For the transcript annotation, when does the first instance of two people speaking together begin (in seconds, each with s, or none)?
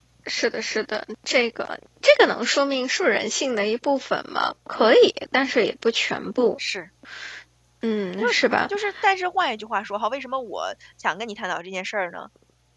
none